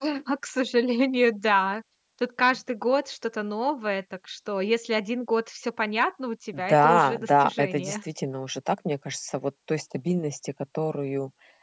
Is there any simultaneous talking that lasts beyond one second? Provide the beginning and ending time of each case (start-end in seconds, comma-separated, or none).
6.7-8.0